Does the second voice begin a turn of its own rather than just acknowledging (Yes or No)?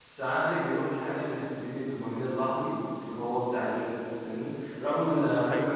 No